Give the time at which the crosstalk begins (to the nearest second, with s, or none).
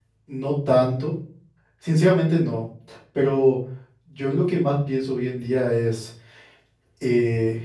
none